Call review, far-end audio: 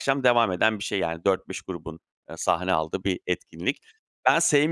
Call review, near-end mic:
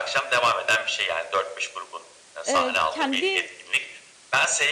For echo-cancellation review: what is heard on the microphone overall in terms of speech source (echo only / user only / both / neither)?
both